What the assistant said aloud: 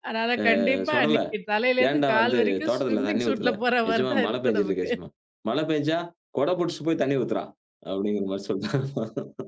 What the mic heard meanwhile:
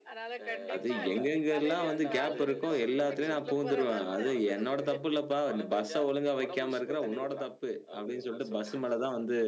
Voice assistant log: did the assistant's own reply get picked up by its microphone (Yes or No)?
Yes